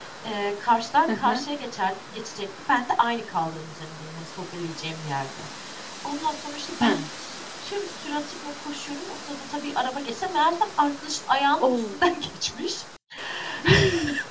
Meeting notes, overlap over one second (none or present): none